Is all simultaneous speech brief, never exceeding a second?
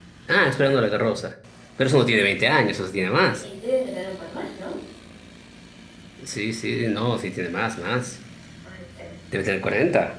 Yes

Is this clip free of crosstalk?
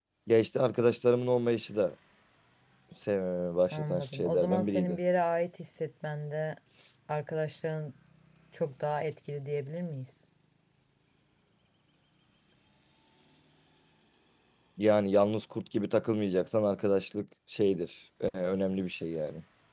No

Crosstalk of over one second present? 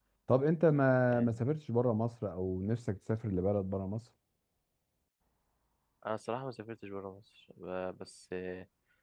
No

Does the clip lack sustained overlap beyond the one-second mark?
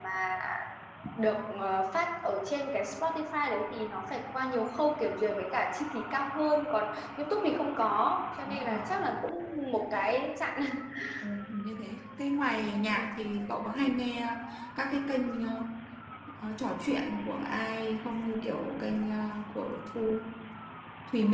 Yes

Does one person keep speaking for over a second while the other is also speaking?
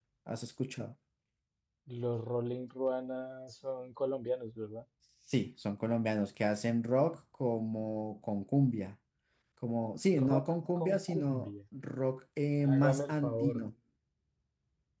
Yes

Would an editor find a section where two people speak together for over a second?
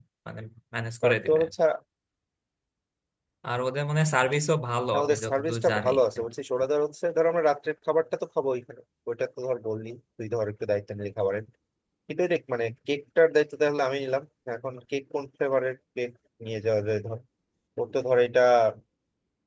Yes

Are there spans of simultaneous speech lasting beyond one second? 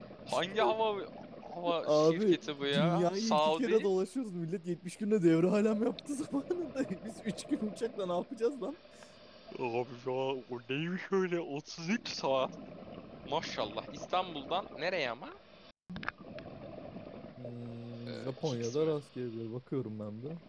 Yes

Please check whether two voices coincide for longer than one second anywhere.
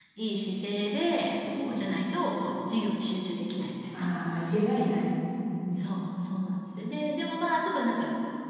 No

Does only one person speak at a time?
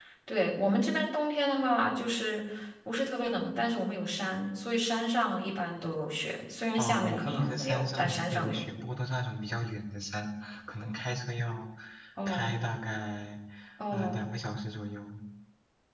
No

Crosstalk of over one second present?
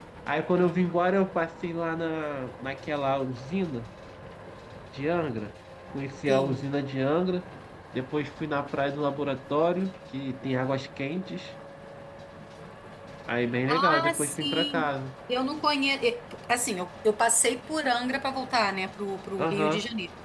Yes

